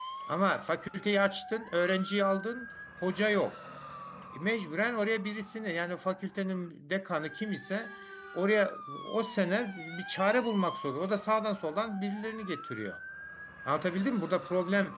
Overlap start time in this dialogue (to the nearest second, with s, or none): none